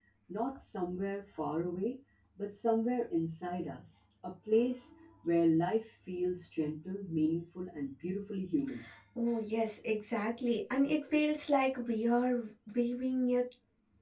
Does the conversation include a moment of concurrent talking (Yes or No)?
No